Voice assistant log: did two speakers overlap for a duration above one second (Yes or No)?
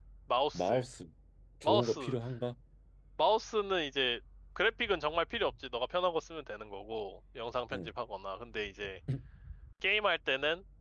No